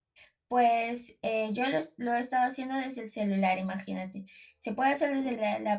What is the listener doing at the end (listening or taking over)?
listening